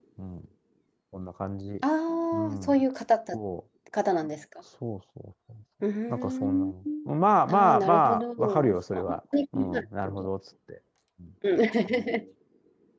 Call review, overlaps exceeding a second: present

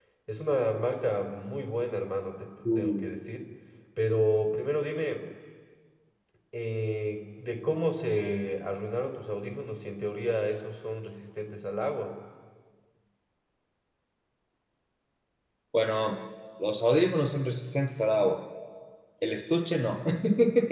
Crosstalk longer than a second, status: none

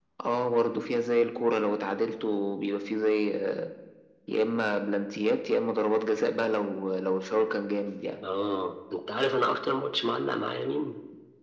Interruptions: none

